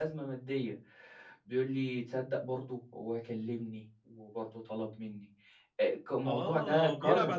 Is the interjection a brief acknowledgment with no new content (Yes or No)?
No